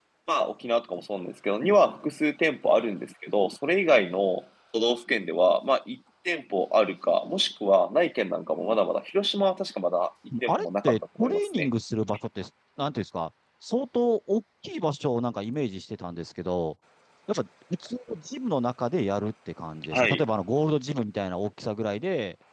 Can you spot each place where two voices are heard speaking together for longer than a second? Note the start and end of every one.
10.5-11.7

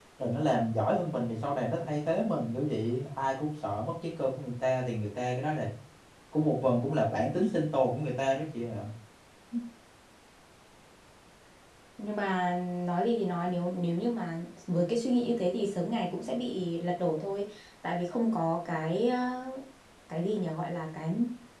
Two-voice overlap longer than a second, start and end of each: none

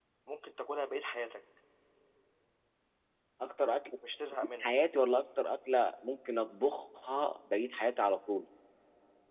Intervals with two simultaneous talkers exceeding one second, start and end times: none

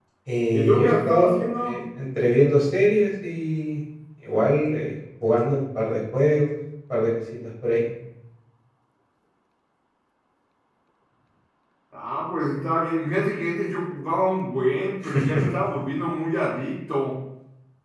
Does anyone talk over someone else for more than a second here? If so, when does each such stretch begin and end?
0.5-1.8

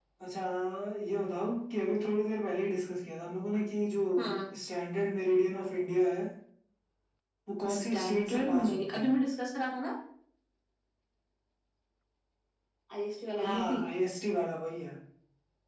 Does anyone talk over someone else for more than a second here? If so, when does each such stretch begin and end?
7.7-9.1

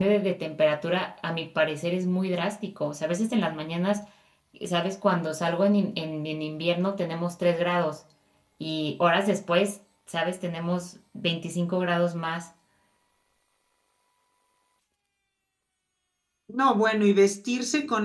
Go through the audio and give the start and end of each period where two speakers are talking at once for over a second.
none

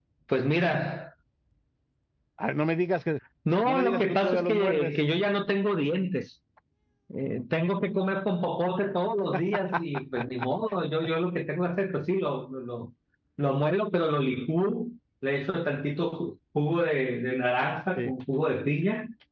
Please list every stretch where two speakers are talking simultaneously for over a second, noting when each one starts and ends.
3.6-4.9

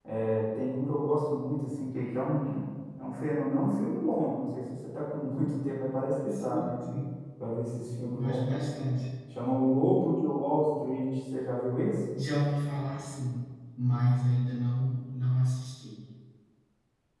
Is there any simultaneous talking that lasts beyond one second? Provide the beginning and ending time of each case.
none

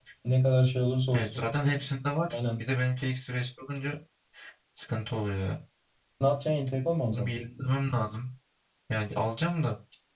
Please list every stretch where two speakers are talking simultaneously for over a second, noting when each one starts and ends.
none

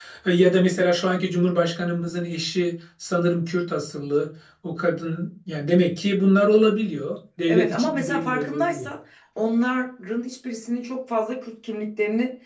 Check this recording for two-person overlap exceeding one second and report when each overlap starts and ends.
7.5-8.9

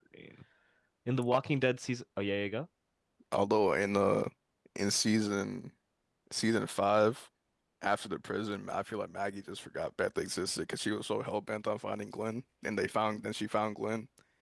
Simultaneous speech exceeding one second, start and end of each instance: none

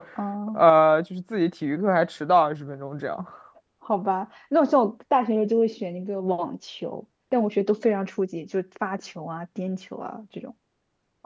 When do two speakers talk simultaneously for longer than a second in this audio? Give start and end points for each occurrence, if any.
none

